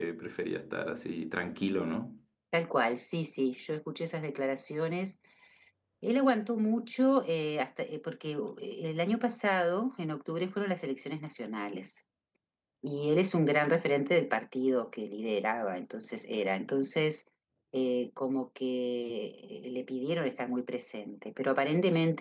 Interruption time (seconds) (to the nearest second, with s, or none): none